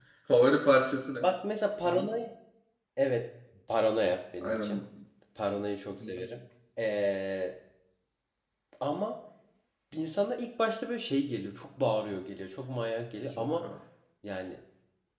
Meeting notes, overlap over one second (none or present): none